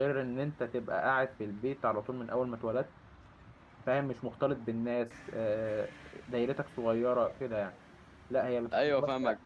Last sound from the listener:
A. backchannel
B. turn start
A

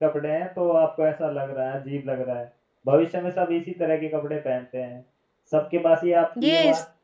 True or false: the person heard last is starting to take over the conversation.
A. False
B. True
A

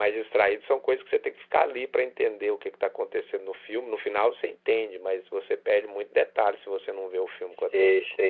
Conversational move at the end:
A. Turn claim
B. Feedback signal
A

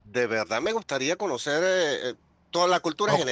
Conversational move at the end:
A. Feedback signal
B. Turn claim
A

